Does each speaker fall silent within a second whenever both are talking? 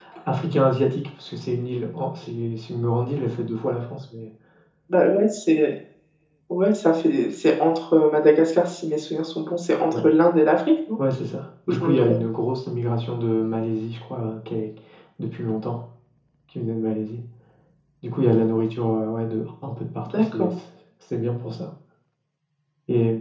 Yes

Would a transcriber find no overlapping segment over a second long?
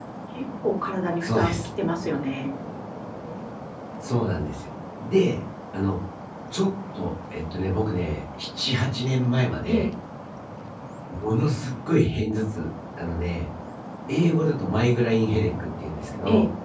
Yes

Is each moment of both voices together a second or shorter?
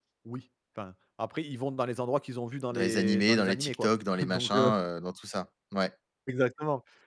No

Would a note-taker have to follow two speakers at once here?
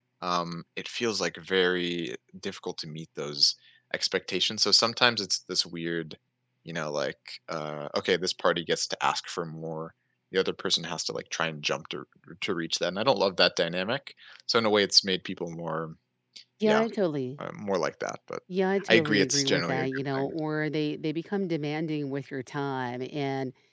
Yes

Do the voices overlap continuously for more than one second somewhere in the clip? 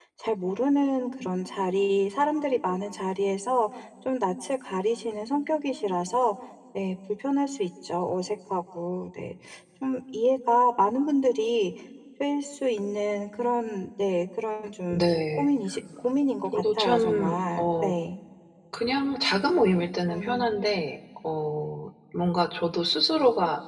Yes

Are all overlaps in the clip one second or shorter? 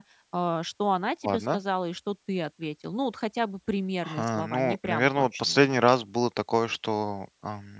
No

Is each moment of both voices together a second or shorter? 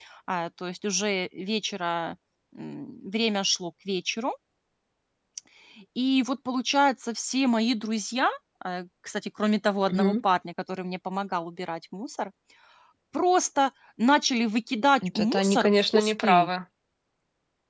No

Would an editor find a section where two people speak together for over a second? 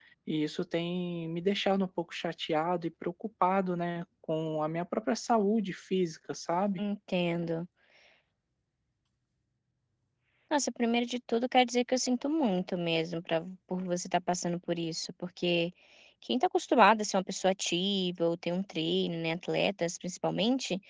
No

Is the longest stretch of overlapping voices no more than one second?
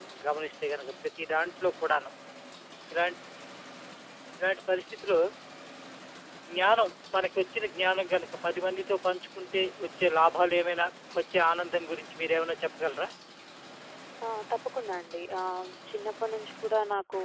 Yes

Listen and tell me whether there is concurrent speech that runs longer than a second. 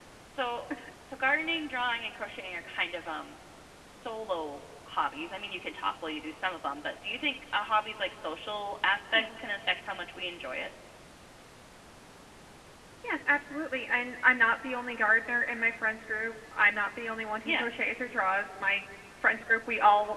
No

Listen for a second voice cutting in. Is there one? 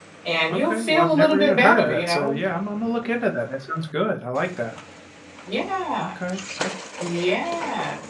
Yes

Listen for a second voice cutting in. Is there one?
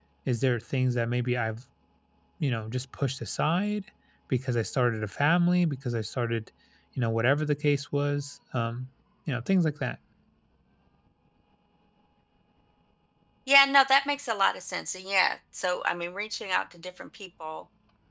No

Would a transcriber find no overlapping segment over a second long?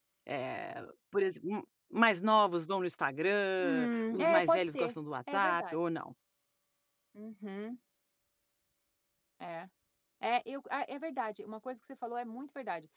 No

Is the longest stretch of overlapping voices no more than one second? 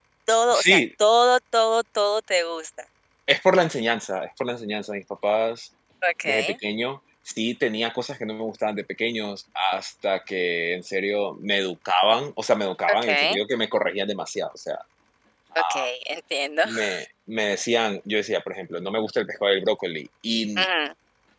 Yes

